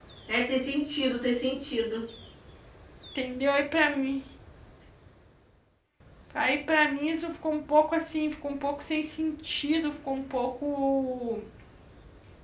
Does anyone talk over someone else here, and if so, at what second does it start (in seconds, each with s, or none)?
none